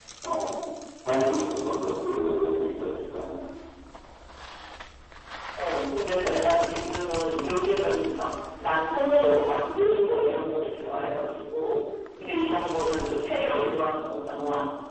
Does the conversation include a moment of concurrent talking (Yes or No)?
No